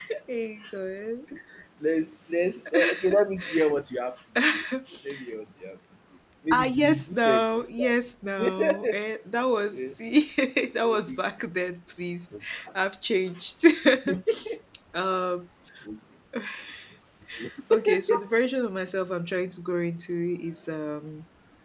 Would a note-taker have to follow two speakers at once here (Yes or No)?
Yes